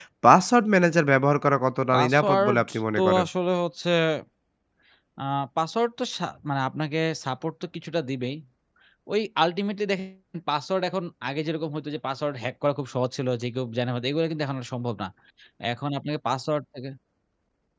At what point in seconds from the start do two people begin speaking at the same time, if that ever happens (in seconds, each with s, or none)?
1.9 s